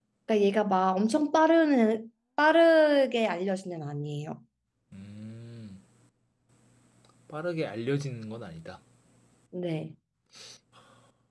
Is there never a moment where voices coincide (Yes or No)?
Yes